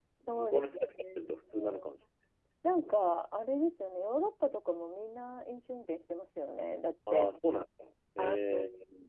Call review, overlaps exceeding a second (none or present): present